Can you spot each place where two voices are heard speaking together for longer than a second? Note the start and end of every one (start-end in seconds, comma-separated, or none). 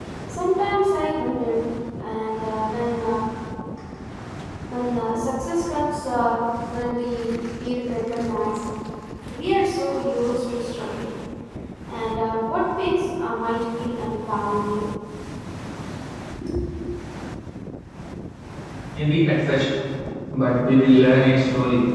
none